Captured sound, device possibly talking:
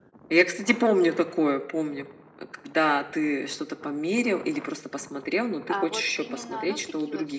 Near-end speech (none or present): present